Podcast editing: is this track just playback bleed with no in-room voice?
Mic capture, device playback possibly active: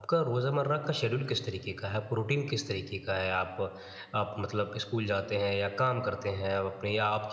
No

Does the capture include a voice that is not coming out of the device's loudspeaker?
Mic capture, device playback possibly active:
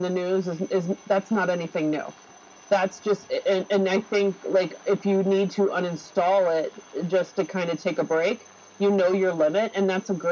No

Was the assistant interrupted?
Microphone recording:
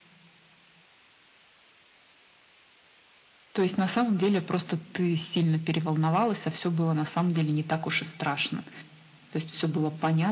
No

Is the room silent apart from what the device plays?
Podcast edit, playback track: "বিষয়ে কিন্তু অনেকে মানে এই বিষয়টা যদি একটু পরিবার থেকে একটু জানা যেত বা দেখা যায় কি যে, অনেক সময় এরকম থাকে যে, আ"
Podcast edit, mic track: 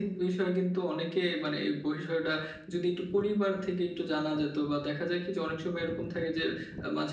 Yes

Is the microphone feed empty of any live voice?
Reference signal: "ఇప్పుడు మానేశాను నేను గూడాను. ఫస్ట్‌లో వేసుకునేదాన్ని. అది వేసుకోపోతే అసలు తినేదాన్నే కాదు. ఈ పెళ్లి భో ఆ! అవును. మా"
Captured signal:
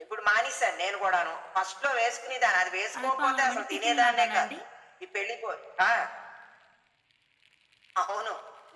No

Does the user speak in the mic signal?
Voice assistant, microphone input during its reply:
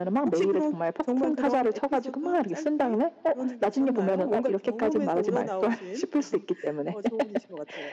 No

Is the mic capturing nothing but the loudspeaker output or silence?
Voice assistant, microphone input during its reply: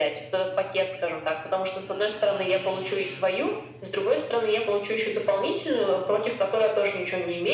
Yes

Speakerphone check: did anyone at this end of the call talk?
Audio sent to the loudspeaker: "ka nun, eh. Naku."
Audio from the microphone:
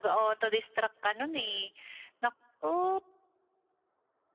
No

